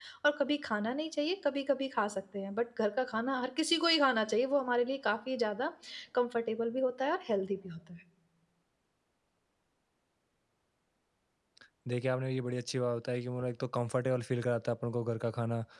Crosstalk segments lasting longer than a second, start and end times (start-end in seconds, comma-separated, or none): none